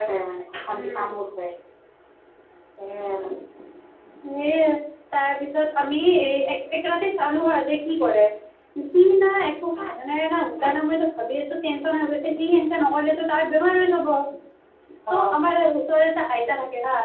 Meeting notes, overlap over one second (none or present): none